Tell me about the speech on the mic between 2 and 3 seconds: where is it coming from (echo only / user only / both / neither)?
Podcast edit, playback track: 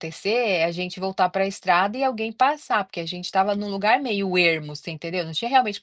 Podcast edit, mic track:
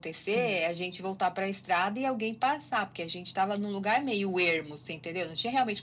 echo only